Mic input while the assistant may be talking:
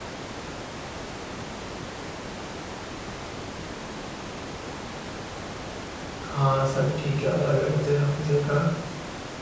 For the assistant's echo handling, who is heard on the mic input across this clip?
user only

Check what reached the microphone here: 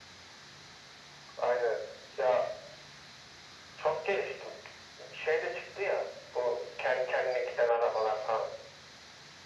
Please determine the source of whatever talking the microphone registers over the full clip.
echo only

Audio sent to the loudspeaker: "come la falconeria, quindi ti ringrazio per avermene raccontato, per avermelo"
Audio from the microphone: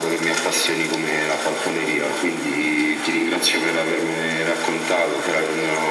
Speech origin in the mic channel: echo only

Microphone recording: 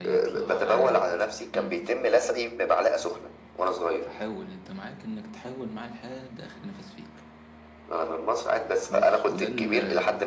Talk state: both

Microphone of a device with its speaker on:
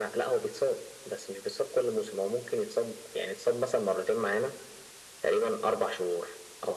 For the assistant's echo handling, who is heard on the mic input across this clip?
echo only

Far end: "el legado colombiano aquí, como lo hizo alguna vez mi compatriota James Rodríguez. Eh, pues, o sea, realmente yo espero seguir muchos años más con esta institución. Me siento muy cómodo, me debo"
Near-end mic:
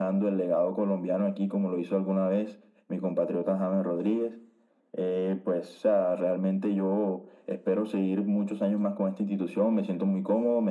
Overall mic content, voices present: echo only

